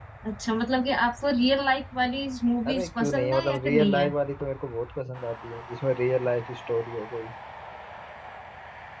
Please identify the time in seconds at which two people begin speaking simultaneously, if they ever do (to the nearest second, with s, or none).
3 s